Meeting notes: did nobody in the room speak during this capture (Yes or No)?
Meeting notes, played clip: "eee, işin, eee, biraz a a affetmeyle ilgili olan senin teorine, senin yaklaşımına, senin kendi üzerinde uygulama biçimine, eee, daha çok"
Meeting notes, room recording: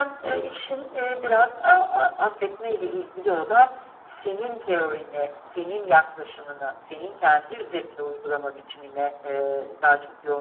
Yes